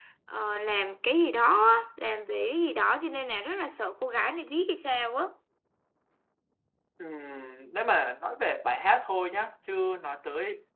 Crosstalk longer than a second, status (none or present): none